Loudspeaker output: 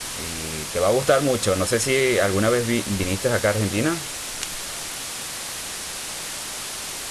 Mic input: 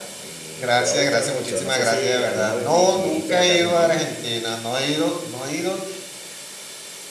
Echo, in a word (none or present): present